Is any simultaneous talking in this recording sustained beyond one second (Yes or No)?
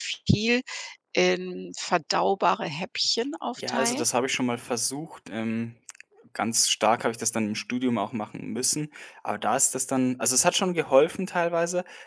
No